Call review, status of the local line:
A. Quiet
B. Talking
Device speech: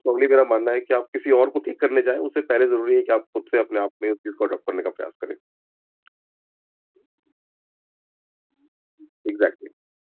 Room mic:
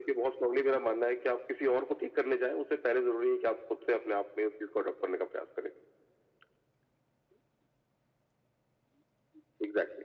A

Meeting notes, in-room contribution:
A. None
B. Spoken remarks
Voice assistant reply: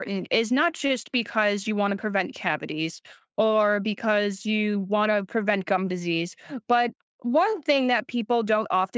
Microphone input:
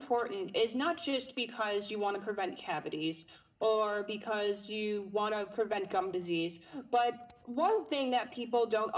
A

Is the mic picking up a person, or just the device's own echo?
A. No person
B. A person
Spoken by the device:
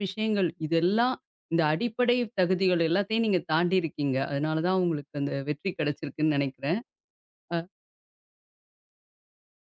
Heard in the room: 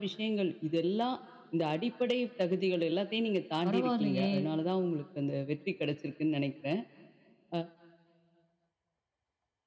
B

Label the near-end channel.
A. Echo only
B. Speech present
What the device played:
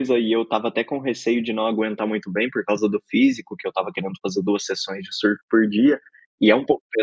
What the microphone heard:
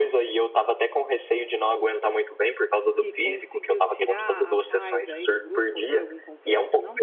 B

